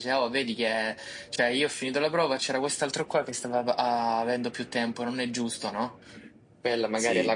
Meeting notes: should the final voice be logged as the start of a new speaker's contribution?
No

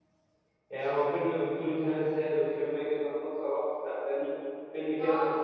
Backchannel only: Yes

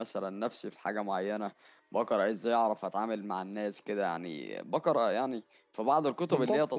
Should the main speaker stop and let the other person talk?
Yes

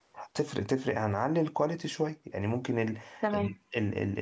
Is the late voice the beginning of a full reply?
No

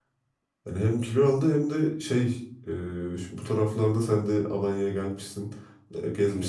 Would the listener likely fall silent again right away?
Yes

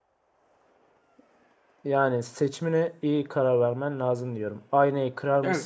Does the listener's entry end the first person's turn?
No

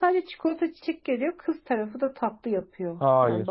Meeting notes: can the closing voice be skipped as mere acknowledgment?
No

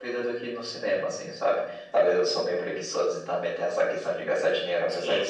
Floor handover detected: Yes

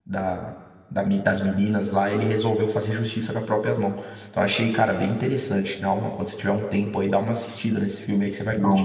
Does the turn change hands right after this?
Yes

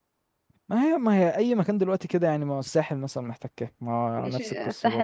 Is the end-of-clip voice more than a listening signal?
Yes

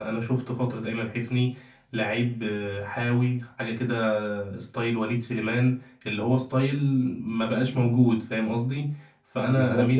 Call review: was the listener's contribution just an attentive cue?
No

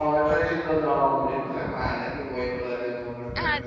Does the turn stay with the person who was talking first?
No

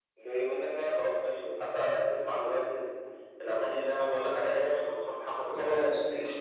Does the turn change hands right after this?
Yes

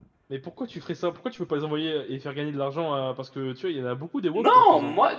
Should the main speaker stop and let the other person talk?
Yes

